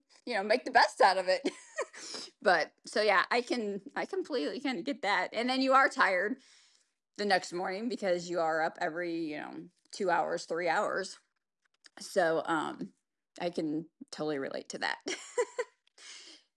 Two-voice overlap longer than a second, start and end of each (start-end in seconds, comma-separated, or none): none